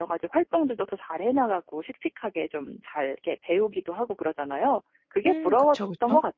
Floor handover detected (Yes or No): Yes